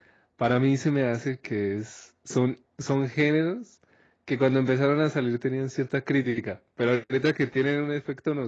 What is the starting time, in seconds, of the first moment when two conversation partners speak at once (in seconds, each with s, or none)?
none